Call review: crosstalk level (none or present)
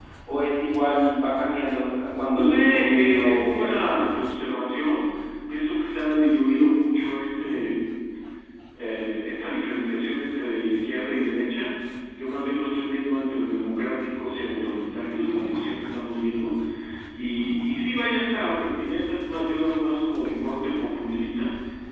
present